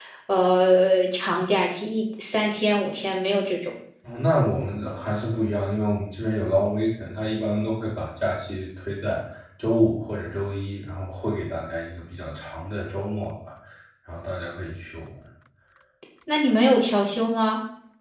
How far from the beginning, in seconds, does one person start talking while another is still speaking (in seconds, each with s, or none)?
none